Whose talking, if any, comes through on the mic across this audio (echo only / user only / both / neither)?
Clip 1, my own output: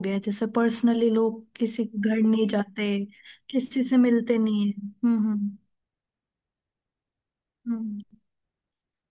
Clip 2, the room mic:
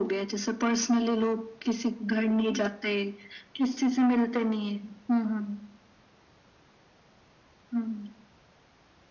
echo only